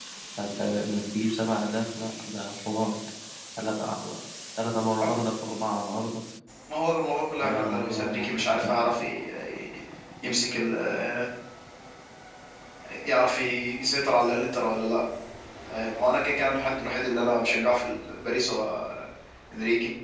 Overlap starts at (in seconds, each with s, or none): 7.4 s